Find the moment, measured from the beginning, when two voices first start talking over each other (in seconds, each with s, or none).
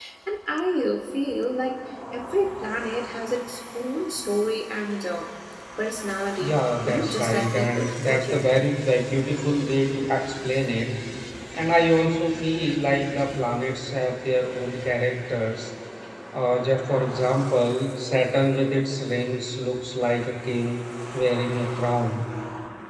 6.4 s